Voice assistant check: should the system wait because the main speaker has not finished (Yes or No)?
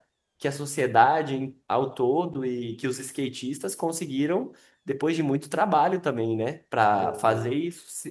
Yes